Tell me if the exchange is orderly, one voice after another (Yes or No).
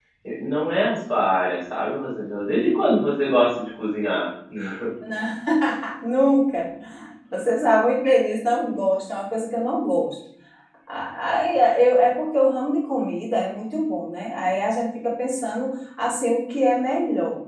Yes